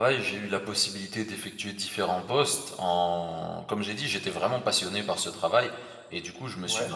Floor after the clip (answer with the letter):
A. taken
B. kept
B